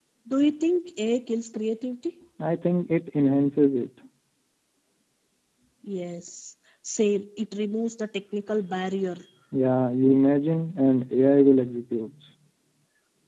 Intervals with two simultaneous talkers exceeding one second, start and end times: none

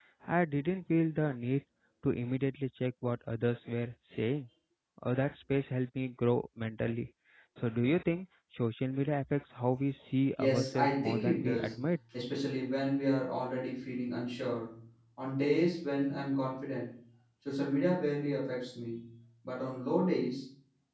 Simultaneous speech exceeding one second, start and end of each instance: 10.4-11.8

